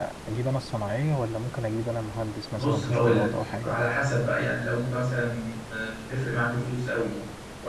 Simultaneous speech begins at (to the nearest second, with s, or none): 3 s